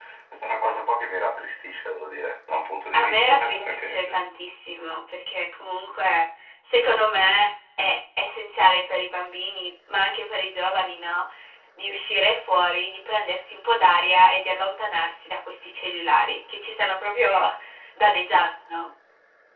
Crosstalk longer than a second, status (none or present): present